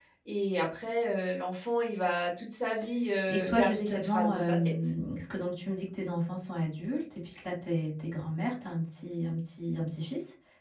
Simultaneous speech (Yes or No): Yes